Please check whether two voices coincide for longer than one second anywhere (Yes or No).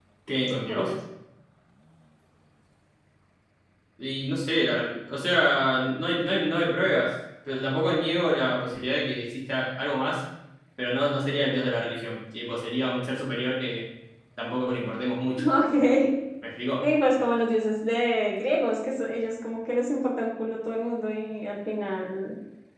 No